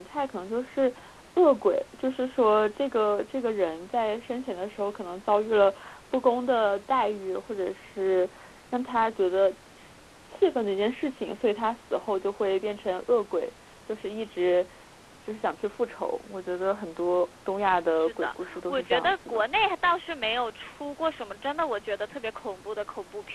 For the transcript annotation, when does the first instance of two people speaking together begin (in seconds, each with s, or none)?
17.9 s